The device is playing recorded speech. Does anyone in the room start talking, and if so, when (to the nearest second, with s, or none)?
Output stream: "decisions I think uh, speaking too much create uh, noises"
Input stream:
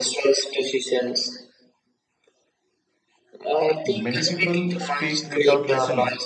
4 s